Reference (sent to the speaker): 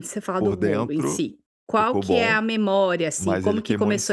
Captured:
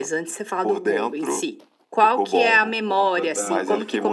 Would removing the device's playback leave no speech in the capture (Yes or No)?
No